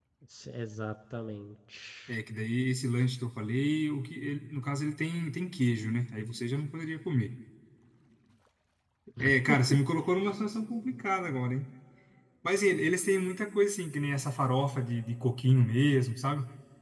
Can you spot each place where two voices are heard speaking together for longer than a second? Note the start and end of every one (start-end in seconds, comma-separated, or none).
none